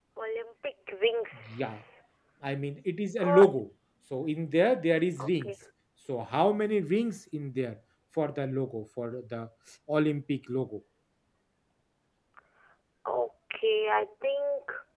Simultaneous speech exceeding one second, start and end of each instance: none

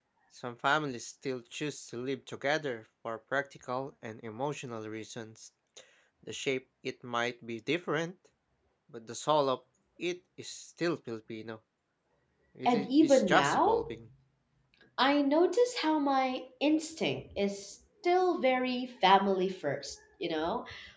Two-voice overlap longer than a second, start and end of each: 12.7-13.9

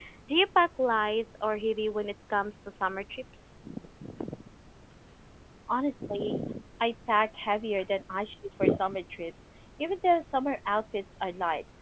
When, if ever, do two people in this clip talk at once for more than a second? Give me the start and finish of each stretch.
none

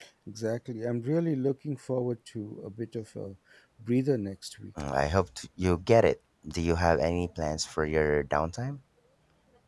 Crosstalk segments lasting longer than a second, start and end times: none

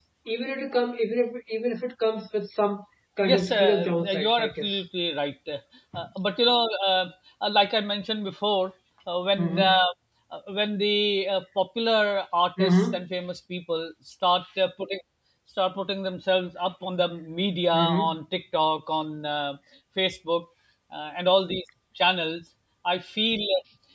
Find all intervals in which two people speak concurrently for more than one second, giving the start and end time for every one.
3.2-4.7

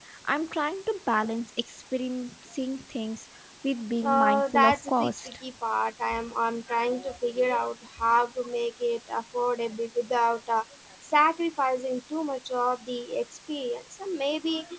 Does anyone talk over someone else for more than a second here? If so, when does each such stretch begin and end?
4.0-5.3

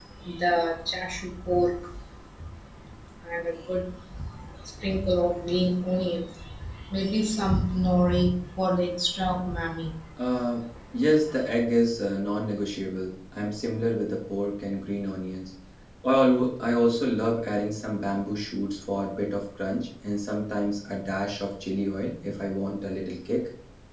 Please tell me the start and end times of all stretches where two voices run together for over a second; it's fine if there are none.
none

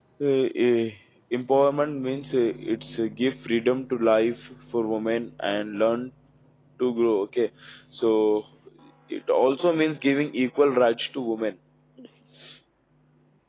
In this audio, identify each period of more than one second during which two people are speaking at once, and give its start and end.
none

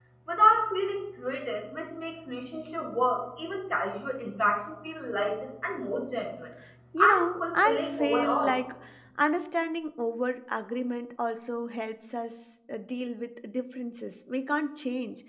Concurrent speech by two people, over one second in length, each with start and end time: 7.0-8.6

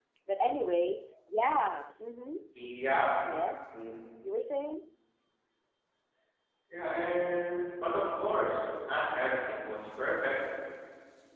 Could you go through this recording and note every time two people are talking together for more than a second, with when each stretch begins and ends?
none

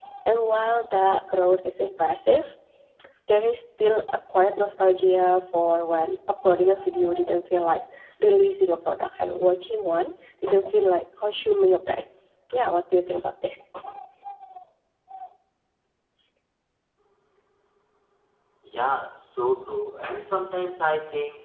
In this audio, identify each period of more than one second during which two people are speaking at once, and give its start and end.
none

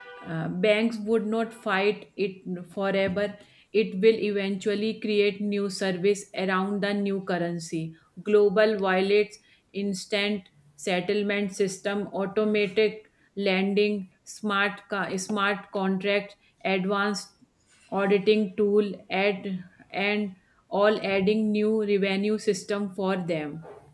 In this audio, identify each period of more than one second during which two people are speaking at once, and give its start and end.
none

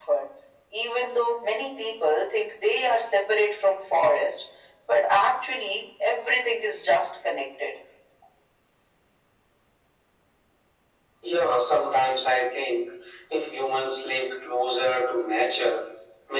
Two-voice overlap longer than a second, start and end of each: none

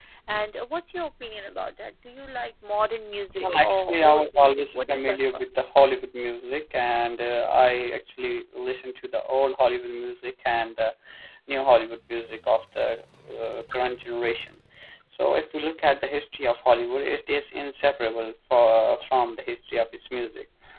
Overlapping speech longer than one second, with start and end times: 3.4-5.4

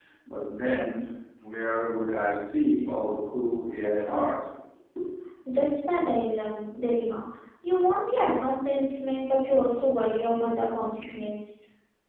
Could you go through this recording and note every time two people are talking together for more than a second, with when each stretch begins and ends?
none

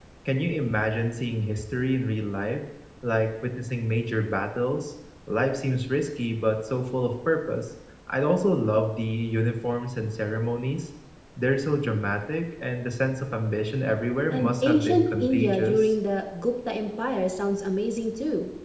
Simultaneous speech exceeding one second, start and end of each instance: 14.3-15.9

